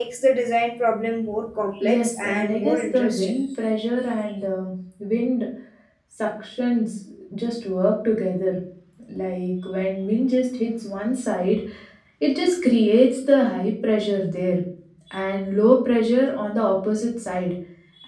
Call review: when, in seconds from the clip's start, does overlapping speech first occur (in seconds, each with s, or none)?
1.8 s